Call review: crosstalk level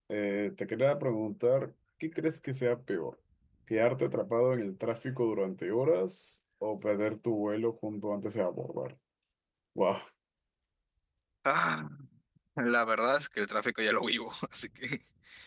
none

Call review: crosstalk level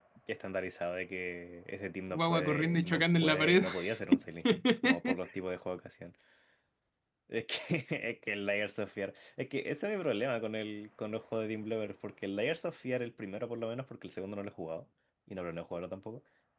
present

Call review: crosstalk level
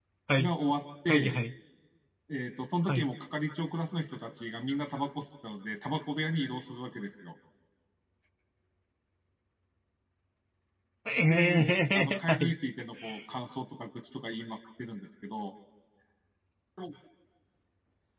present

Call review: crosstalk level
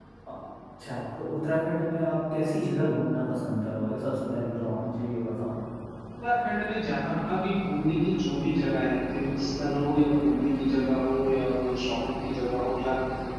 none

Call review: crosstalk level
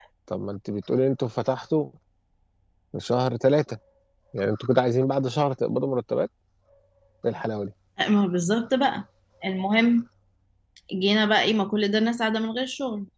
none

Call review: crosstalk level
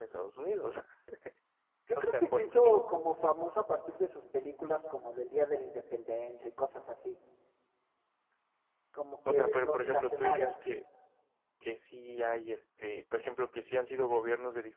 present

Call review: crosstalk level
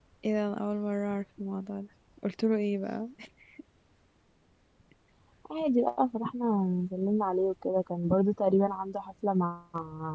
none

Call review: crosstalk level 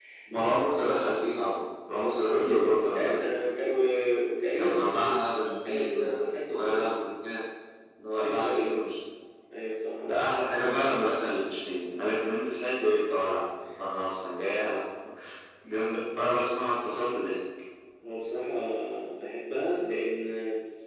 present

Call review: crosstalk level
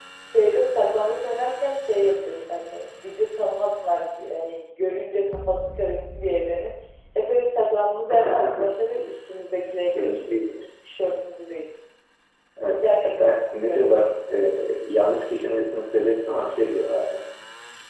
present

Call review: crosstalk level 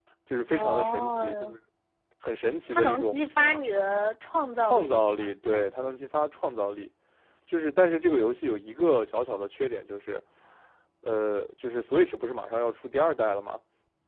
present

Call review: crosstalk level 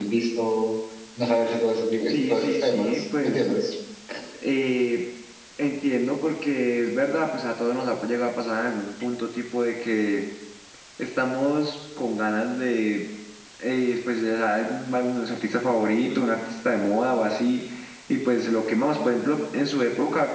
present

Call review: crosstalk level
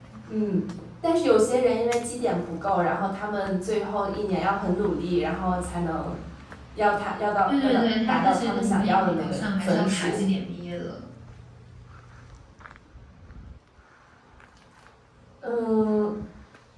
present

